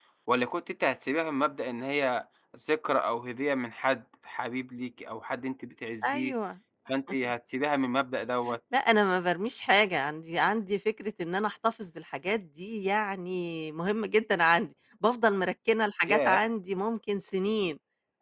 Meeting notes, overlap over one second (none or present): none